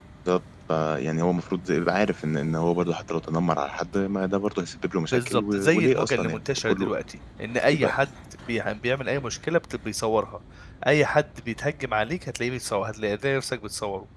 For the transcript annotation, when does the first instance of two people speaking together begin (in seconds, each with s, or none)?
5.1 s